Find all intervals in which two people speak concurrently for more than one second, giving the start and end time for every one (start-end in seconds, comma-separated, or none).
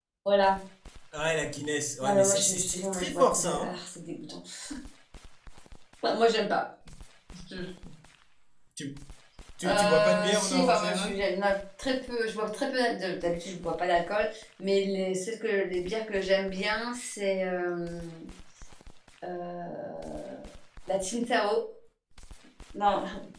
2.0-3.8, 9.7-11.2